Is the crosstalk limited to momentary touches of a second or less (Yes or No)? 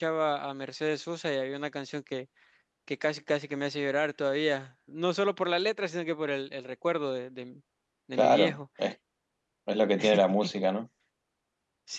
Yes